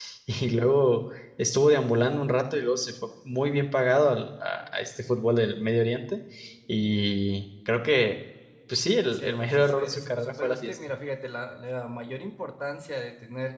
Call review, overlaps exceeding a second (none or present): present